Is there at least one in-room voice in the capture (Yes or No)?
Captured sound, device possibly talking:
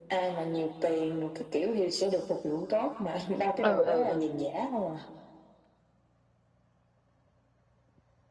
Yes